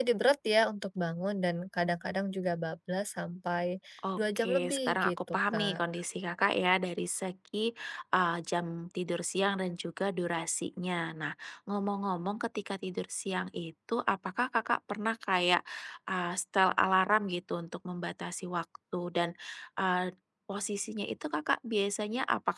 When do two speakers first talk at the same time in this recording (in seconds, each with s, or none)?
4.2 s